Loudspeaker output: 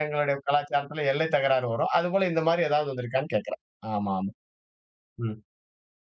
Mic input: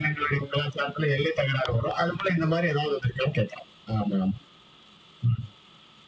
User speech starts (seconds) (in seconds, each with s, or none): none